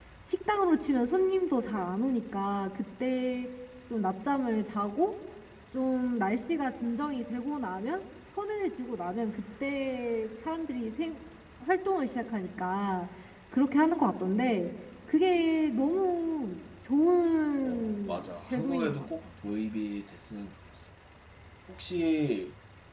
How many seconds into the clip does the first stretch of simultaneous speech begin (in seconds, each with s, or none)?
17.6 s